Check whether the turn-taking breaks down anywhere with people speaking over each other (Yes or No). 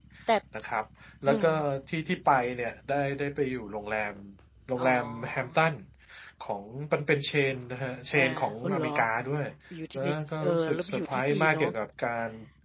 Yes